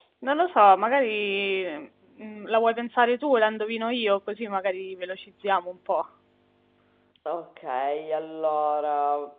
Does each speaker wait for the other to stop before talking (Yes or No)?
Yes